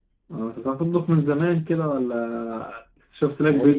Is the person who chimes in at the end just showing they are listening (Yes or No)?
No